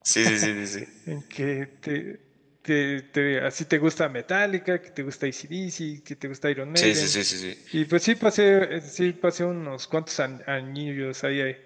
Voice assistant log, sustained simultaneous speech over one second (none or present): none